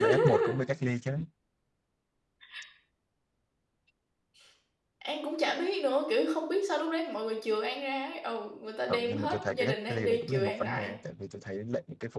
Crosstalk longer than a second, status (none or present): present